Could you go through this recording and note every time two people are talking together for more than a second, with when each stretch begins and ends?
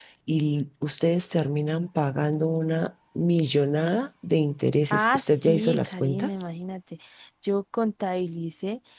4.9-6.3

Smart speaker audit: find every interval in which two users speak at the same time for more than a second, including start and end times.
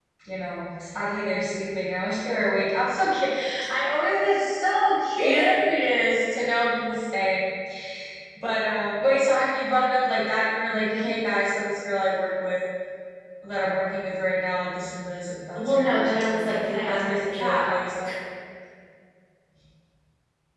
15.7-17.6

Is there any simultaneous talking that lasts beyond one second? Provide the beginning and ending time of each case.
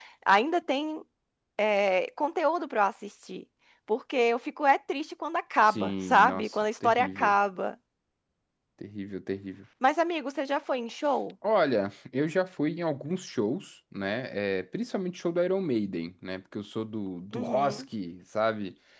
5.7-7.3

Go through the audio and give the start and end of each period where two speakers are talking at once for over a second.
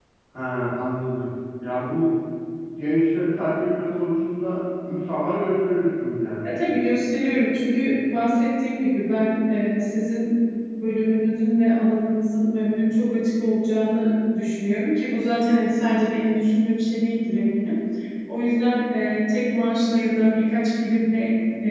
none

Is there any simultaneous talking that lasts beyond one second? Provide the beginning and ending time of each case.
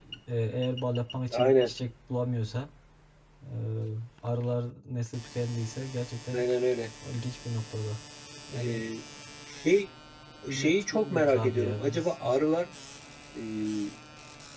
10.5-12.2

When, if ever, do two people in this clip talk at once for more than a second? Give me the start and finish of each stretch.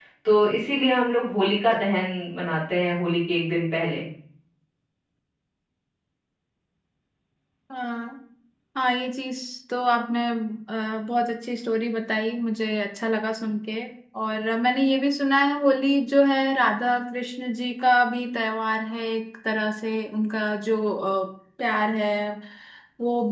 none

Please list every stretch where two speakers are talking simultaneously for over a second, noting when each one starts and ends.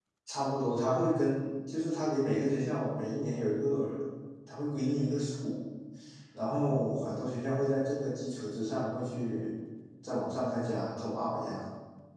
none

